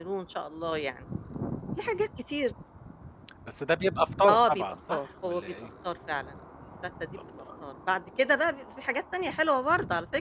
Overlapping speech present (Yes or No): Yes